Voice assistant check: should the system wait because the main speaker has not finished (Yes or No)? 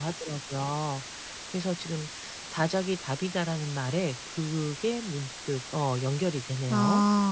No